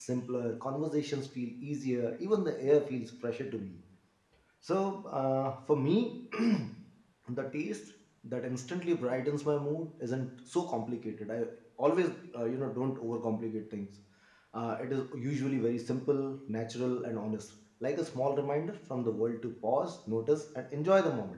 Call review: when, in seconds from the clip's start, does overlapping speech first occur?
none

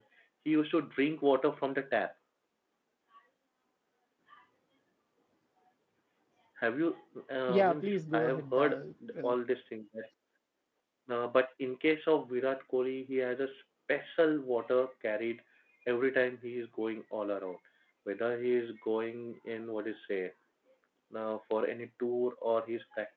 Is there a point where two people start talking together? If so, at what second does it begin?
7.5 s

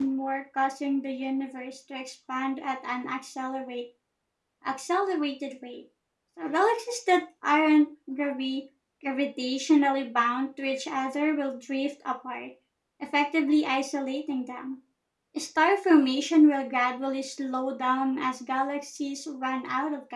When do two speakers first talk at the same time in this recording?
none

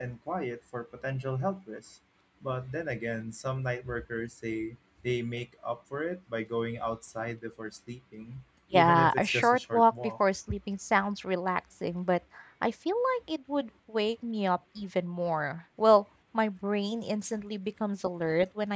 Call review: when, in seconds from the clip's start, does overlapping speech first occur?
8.7 s

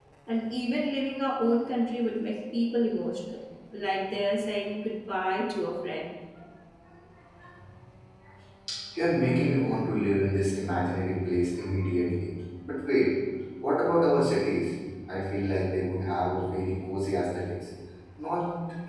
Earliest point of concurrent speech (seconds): none

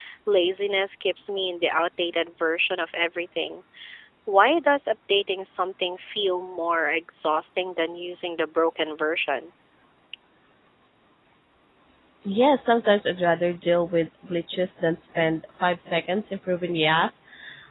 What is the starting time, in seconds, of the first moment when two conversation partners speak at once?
none

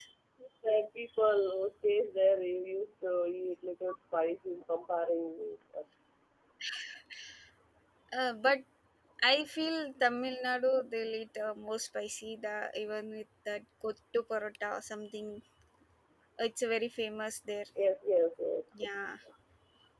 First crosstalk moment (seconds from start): none

